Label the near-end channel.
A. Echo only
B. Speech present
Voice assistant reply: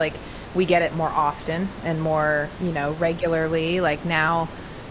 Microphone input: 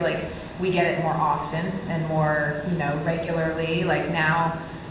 A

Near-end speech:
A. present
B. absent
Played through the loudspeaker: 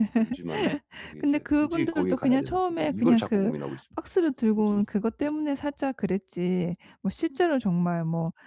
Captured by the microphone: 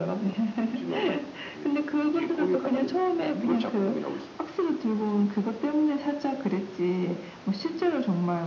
B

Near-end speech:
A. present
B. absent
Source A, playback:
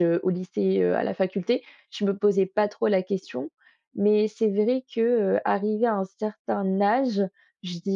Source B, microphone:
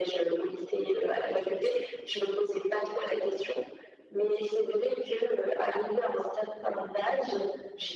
B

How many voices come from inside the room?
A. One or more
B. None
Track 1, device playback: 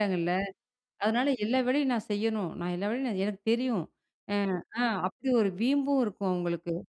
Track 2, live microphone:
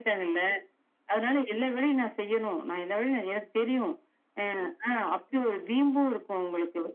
B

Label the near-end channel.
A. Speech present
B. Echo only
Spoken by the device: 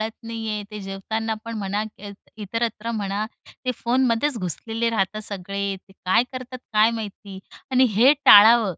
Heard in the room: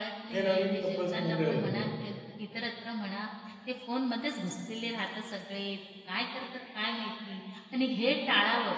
A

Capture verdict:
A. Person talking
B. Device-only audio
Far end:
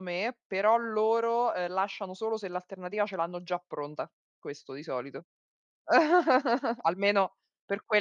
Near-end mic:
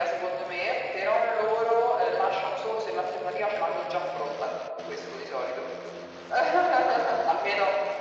B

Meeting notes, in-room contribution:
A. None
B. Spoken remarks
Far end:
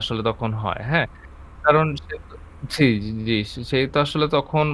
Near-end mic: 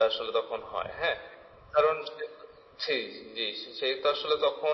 A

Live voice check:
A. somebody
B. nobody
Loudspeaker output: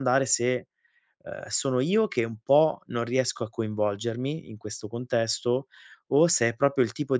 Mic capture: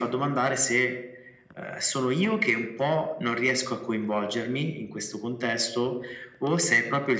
B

